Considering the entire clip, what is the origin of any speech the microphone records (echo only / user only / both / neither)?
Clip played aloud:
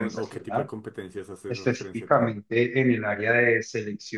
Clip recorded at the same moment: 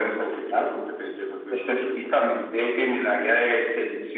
echo only